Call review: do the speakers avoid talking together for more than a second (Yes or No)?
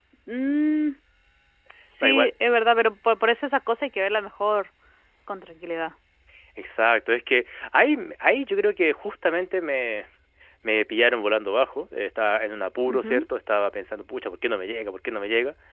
Yes